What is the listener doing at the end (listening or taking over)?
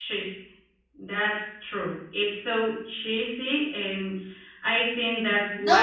taking over